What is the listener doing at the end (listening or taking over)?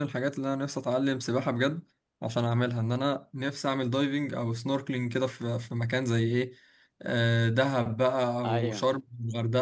listening